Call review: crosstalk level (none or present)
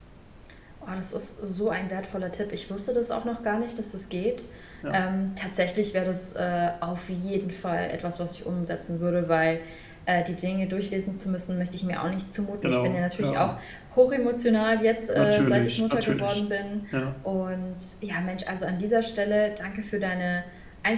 present